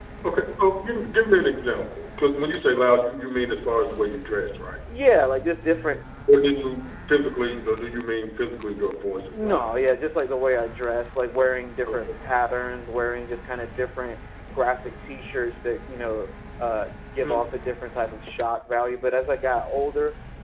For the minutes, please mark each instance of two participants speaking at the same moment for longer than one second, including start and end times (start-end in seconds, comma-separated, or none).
none